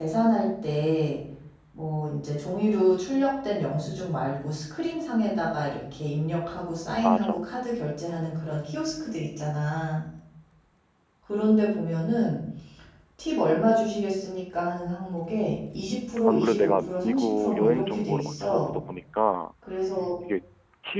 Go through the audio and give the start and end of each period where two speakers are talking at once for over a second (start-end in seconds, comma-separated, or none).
16.2-18.8